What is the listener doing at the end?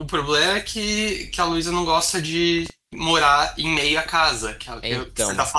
listening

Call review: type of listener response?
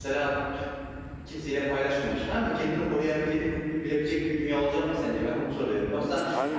listening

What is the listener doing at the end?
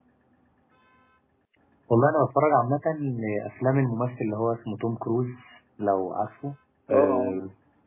listening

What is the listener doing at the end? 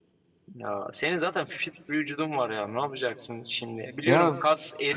taking over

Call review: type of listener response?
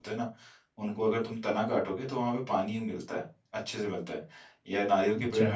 listening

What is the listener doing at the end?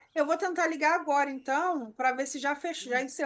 listening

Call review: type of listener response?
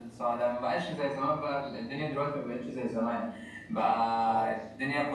listening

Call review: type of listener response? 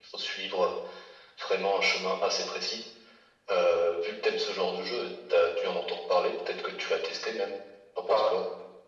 taking over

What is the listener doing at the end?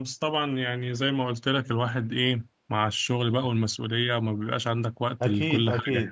taking over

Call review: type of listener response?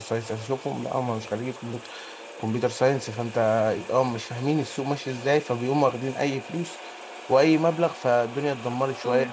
taking over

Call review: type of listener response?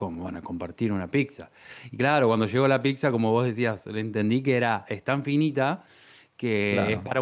listening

